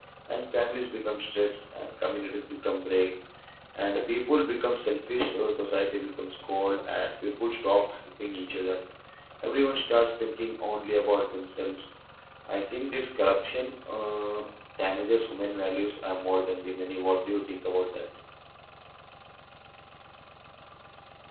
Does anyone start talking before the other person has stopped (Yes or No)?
No